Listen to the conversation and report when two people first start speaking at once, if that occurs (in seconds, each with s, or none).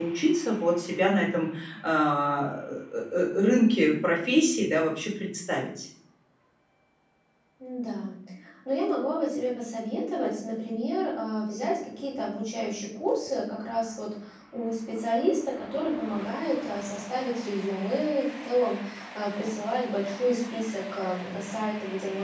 none